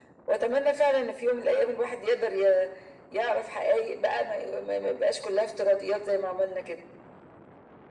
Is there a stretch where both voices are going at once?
No

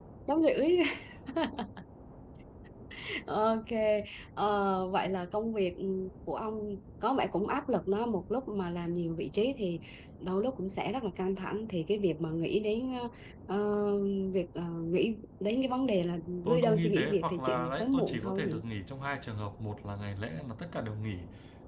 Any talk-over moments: Yes, from 16.4 s

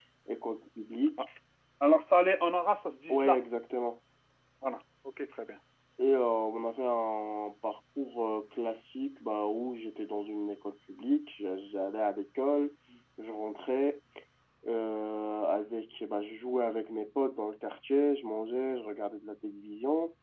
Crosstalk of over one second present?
No

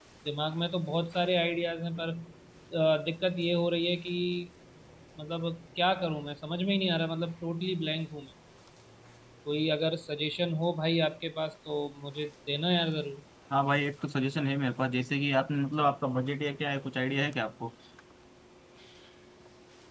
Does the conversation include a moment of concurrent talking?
No

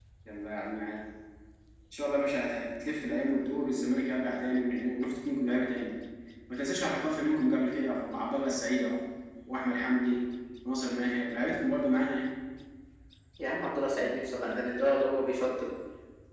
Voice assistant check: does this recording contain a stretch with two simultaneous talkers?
No

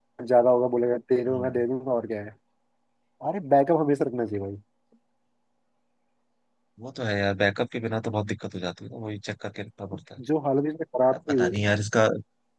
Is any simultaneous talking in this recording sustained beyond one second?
No

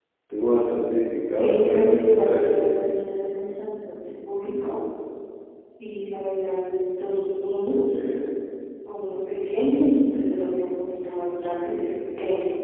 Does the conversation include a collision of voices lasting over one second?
Yes, from 1.4 s

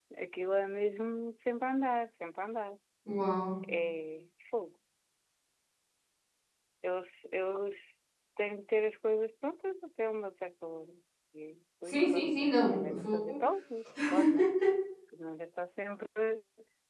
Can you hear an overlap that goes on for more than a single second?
Yes, from 11.8 s

